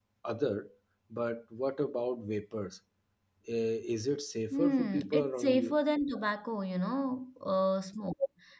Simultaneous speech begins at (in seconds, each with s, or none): 4.5 s